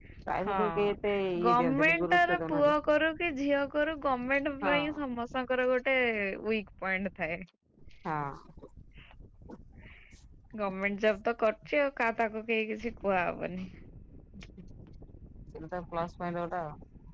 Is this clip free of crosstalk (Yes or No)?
No